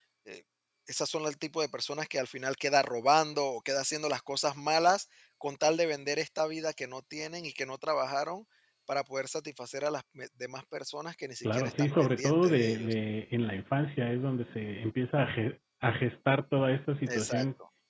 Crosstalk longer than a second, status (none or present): present